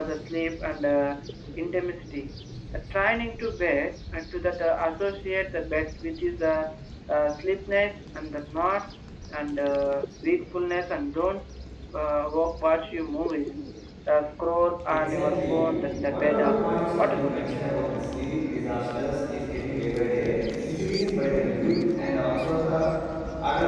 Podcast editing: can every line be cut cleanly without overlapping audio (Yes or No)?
No